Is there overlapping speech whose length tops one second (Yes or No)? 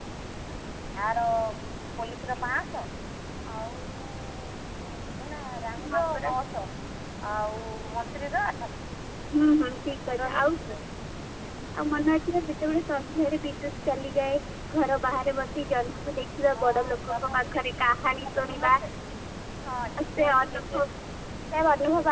Yes